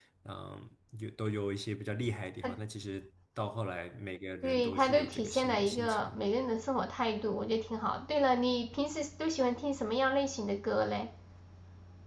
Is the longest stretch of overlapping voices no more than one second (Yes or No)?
No